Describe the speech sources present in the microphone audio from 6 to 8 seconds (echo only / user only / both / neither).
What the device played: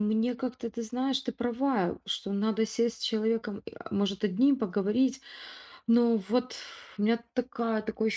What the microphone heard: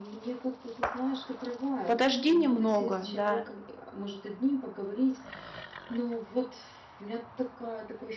echo only